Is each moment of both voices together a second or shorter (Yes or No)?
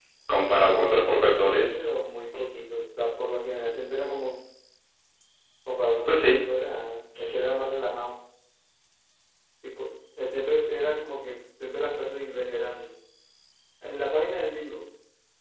Yes